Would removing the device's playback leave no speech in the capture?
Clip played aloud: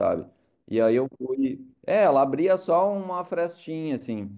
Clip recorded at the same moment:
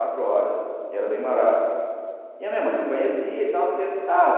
No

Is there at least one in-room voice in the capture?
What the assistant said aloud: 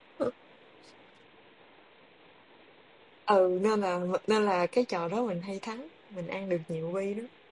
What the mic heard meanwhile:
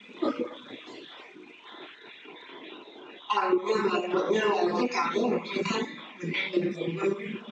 No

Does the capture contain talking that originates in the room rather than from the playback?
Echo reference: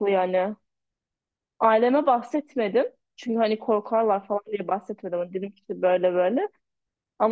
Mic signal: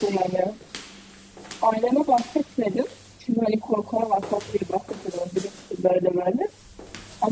No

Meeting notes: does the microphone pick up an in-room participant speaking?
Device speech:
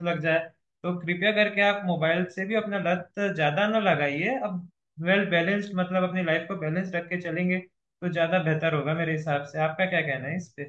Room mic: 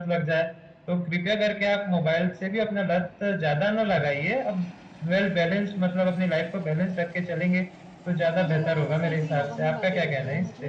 Yes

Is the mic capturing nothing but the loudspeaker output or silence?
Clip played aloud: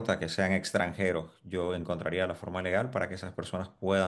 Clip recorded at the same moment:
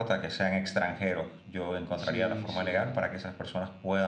No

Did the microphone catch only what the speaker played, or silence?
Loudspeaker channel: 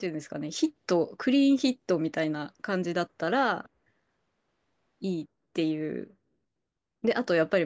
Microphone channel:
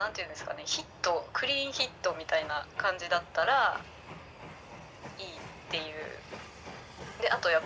Yes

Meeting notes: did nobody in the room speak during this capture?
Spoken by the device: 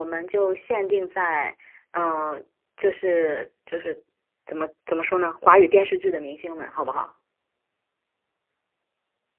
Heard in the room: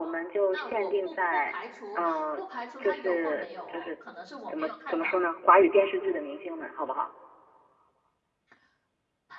No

